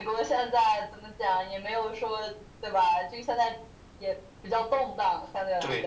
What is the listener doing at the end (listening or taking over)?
taking over